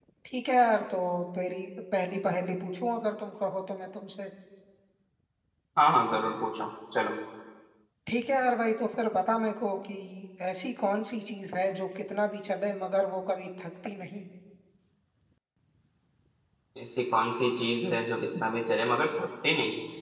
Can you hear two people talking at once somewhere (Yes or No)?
No